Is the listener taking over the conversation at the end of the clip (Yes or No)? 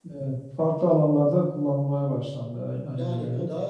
Yes